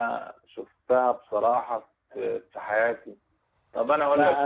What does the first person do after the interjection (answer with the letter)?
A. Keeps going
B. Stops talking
B